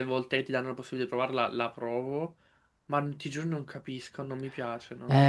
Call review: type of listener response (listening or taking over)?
taking over